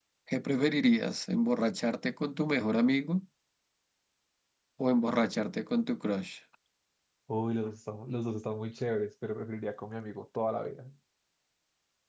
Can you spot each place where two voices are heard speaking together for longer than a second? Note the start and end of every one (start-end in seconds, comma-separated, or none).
none